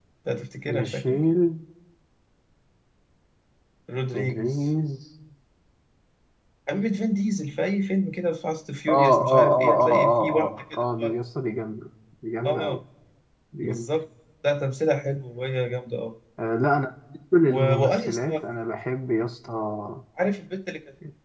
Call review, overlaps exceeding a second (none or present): present